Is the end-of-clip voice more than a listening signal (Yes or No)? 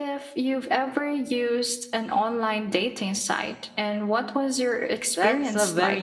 Yes